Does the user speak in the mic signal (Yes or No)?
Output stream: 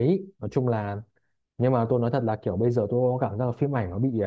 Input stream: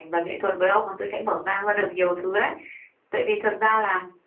Yes